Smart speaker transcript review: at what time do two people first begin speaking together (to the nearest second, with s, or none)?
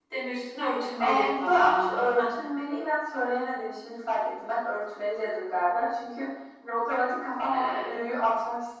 1 s